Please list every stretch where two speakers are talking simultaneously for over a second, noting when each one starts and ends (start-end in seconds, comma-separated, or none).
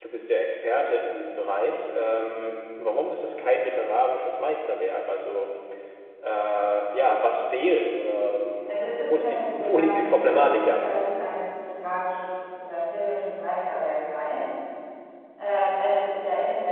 8.6-11.0